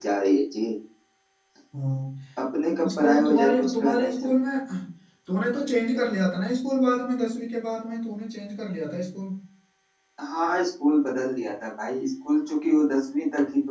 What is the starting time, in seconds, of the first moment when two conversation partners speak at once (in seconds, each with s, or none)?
2.7 s